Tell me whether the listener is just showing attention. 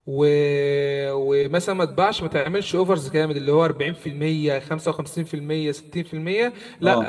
Yes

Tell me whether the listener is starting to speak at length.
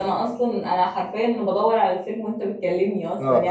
Yes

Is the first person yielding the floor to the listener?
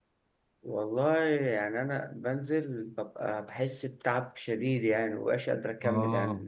Yes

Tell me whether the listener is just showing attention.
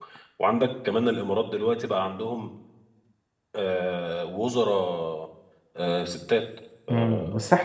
No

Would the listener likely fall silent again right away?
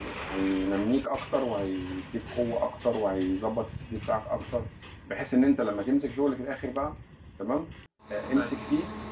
Yes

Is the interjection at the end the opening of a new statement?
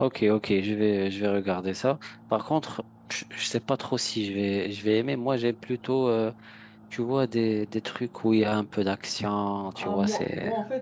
Yes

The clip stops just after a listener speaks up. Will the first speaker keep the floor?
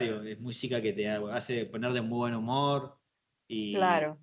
No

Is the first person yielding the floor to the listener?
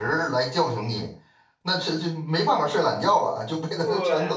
Yes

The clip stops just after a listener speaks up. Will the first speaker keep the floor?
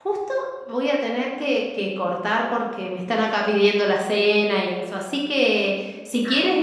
Yes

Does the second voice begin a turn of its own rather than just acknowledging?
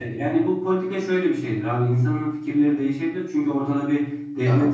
No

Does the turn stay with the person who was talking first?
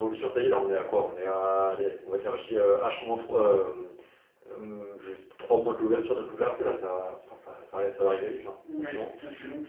No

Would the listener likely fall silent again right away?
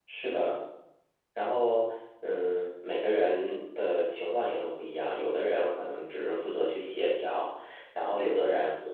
Yes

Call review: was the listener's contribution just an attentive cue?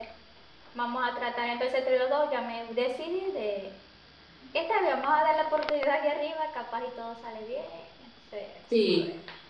No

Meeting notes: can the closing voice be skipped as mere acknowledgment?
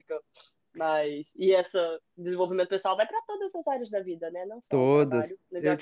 Yes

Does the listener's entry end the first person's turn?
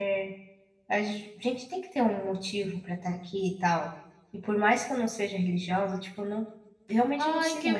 Yes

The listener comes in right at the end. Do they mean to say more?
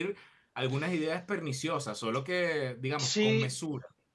Yes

